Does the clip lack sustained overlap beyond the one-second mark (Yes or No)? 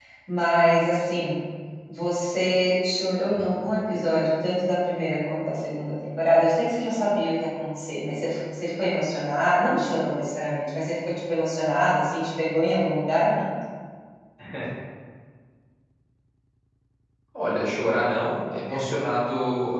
Yes